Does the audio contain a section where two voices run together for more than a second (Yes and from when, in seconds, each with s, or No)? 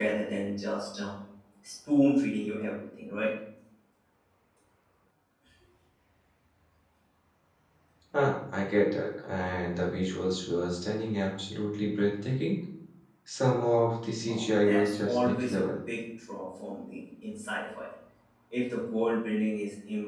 Yes, from 14.3 s